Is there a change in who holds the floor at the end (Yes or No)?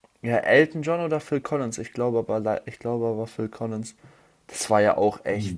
No